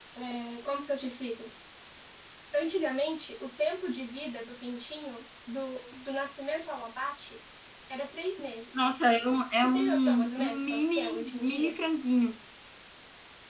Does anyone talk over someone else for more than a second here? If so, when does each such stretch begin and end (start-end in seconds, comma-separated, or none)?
9.6-11.7